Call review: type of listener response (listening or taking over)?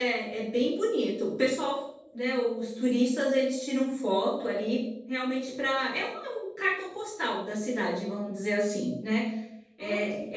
listening